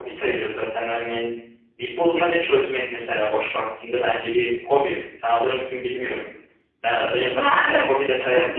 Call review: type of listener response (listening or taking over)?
taking over